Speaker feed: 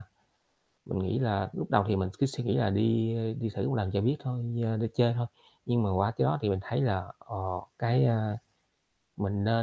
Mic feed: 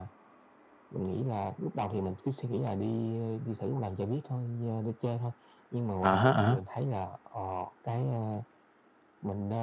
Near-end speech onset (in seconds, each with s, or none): 6.0 s